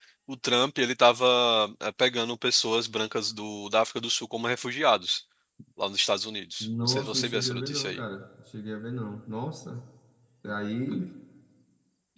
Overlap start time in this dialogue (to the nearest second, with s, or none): 7 s